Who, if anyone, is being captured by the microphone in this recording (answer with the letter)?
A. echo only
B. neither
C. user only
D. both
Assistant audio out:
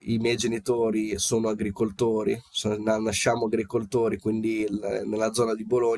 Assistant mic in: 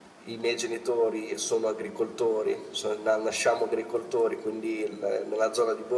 A